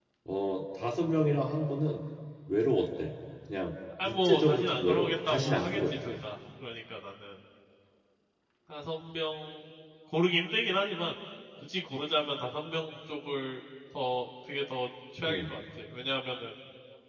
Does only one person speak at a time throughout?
No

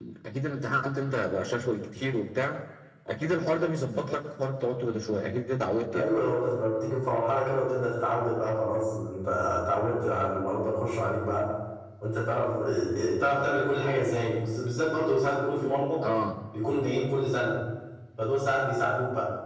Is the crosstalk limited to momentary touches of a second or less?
Yes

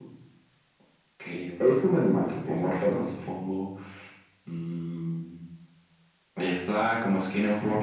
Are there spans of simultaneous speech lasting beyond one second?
Yes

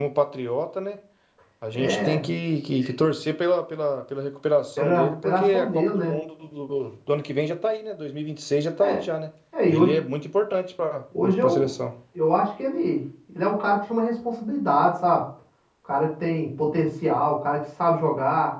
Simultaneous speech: Yes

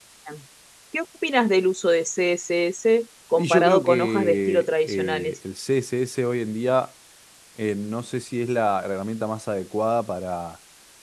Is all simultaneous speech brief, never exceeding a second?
No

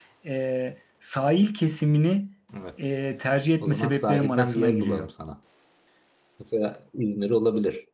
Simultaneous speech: Yes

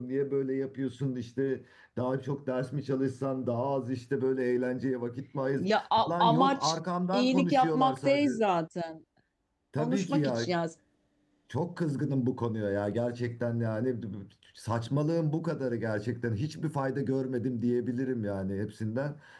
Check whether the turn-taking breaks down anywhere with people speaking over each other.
Yes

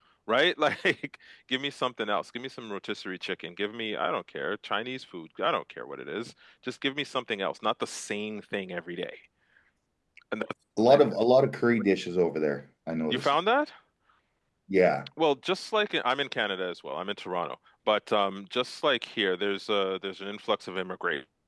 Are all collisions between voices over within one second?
Yes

